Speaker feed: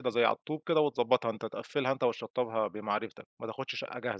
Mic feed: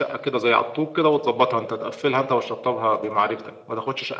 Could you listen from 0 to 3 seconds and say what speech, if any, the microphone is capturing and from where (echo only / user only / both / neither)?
echo only